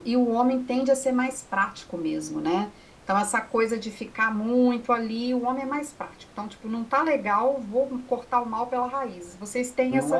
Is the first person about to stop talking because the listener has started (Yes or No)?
Yes